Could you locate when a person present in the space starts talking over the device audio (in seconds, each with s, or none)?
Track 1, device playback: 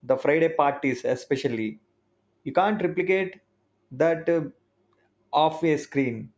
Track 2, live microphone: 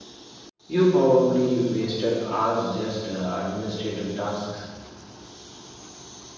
0.7 s